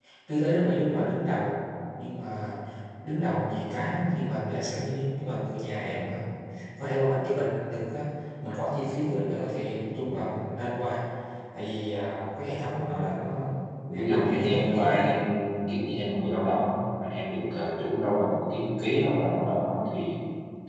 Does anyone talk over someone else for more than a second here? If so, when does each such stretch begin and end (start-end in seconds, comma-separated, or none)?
13.9-15.2